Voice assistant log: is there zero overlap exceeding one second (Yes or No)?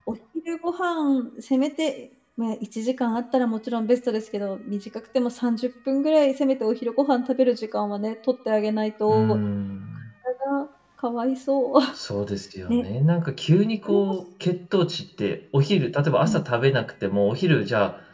Yes